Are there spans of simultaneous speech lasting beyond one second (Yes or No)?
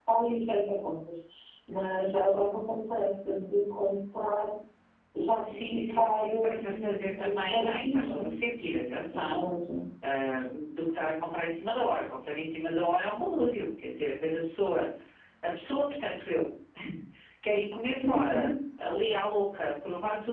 Yes